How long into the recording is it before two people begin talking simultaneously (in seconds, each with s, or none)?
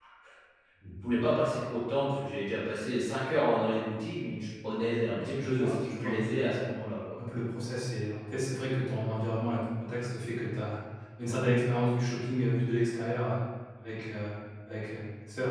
5.3 s